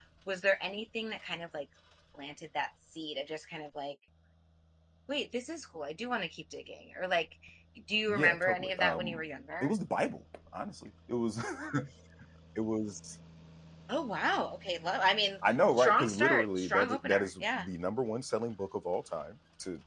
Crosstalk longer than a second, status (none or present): present